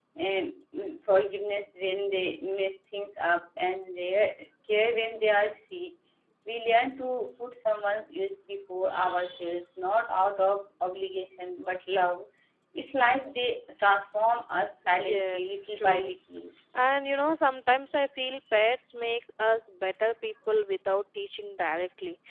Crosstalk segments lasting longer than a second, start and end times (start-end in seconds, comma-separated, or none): 14.8-16.1